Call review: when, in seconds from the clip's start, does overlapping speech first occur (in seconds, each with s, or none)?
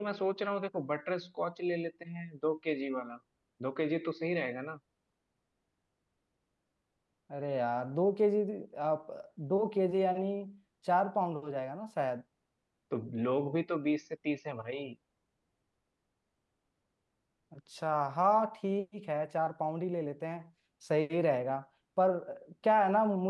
none